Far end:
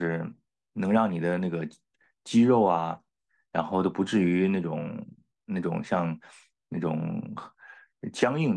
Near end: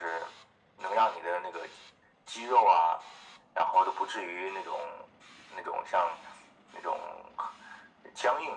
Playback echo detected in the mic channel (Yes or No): Yes